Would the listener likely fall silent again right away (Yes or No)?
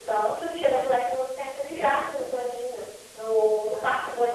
Yes